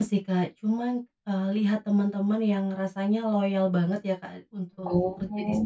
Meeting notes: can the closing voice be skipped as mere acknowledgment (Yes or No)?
Yes